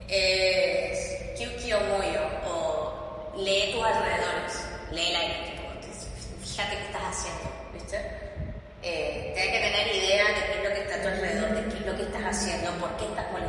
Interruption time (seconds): 10.9 s

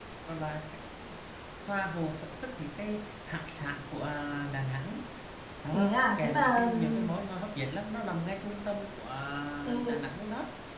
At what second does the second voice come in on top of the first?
5.7 s

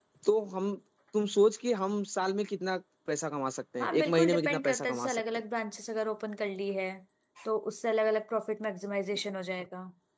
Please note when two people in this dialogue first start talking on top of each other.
3.8 s

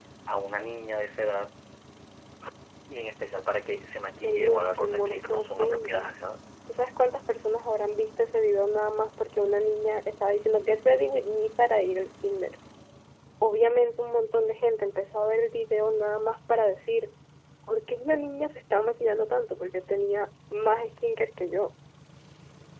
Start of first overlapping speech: 4.2 s

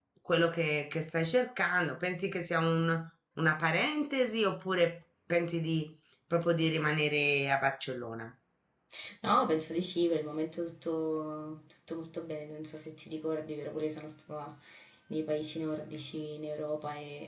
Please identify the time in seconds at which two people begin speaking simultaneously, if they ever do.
none

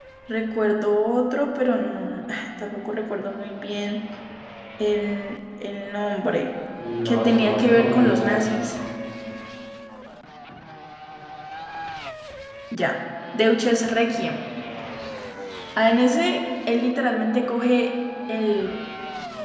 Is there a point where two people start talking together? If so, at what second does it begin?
7.0 s

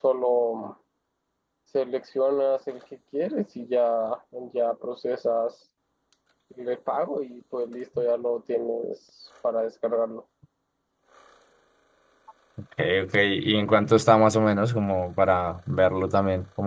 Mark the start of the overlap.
none

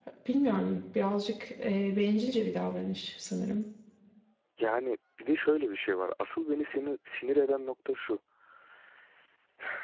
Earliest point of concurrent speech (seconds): none

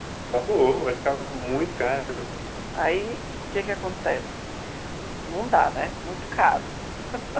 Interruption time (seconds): none

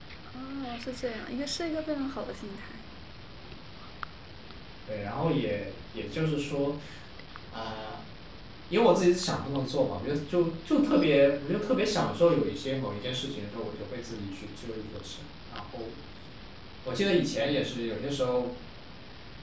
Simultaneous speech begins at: none

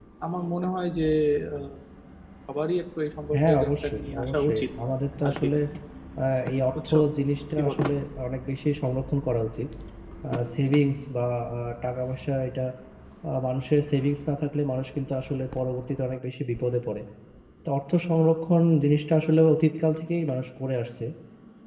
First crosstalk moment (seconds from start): 3.3 s

